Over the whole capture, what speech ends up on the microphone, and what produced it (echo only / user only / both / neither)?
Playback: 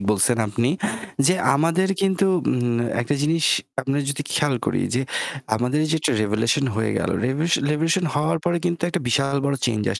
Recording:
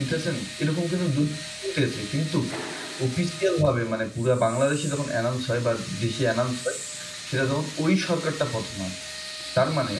user only